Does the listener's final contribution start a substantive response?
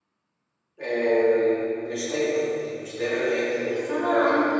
Yes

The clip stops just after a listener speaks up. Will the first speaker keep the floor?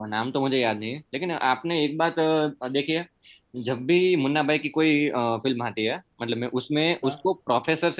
Yes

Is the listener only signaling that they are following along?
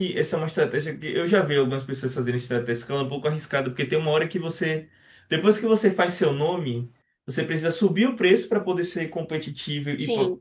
Yes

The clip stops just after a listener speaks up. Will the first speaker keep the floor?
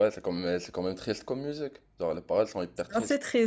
No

